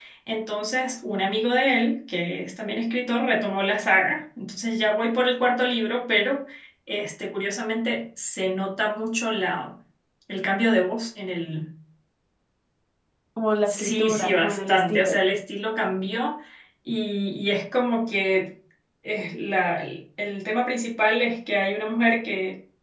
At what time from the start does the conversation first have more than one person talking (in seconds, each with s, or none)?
13.6 s